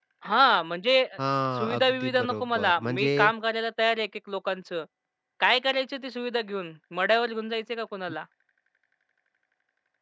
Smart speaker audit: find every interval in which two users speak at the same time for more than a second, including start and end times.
1.6-3.1

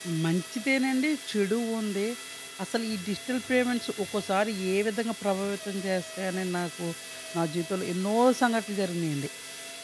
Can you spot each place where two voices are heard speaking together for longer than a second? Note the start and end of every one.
none

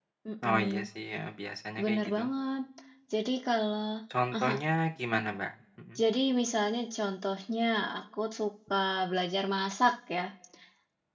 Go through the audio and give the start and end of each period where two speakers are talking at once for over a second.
none

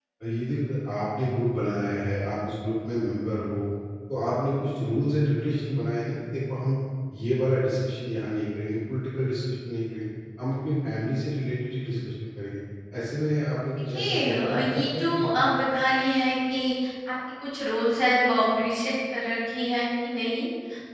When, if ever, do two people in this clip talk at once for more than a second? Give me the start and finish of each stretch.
13.9-15.3

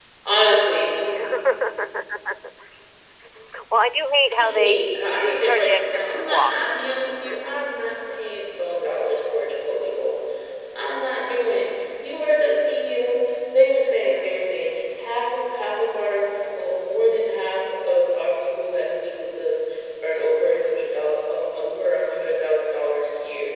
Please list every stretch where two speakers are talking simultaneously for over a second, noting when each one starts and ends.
5.2-6.5

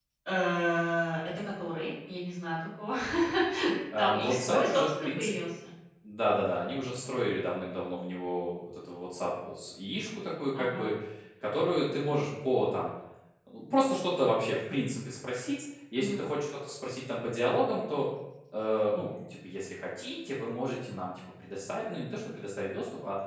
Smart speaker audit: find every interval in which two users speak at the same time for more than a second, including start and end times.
4.0-5.3

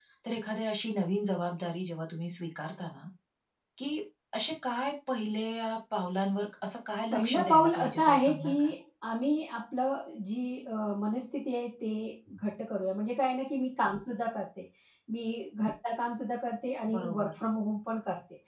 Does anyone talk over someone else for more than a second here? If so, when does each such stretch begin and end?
7.1-8.7

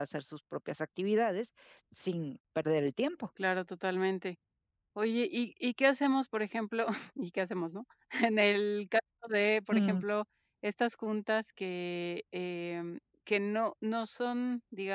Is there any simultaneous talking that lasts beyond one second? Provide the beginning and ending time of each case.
none

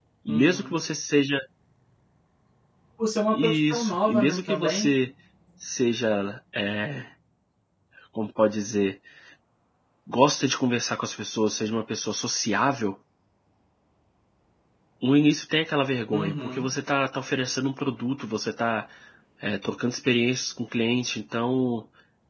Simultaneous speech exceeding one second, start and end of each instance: 3.3-4.9

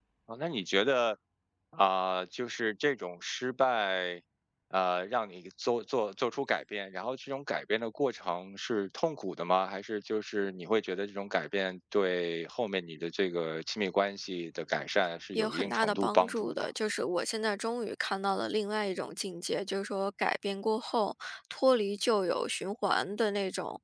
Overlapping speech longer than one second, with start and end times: 15.3-16.7

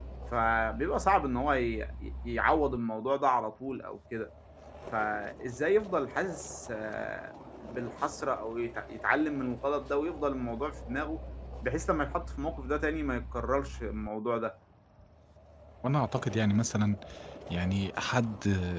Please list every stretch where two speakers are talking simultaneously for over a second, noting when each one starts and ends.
none

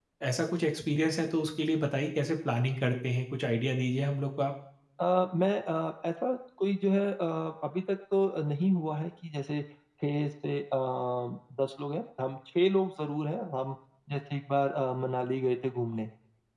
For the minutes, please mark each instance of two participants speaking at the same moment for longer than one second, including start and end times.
none

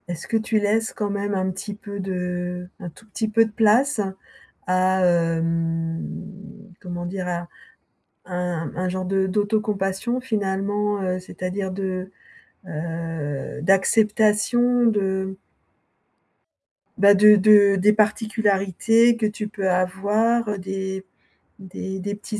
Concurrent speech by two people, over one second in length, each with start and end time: none

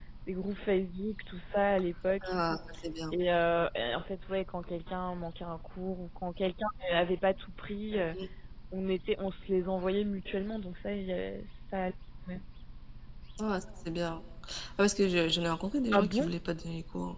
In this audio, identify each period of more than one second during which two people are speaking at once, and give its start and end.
none

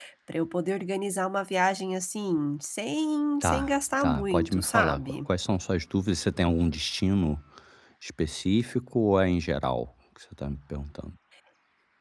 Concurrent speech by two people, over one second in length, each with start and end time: 3.4-5.2

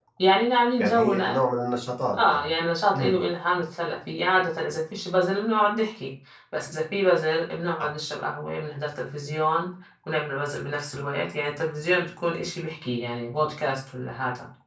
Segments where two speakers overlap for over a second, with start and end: none

